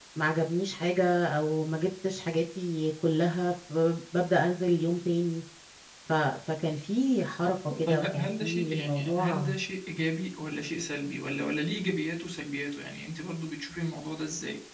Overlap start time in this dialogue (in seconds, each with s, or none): 7.7 s